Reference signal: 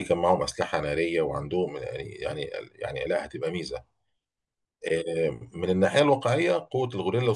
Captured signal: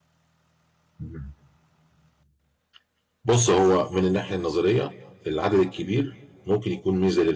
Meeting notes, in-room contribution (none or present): present